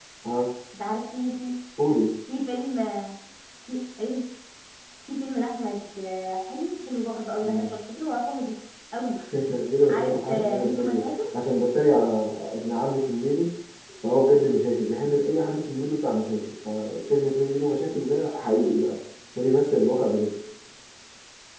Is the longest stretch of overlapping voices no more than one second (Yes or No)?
No